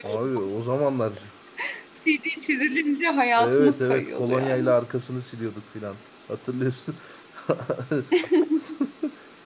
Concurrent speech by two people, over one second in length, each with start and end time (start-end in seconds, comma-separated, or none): 3.4-4.7